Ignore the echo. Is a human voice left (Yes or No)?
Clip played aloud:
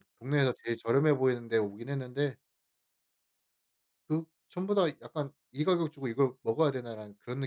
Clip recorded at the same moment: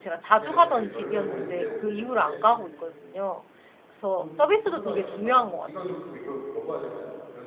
Yes